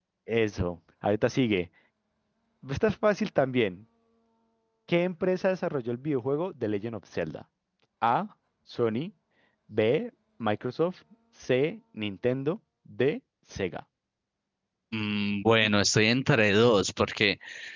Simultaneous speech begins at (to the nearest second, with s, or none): none